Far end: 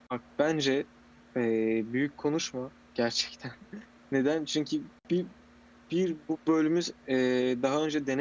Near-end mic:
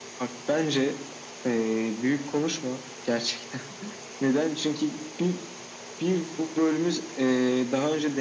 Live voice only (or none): none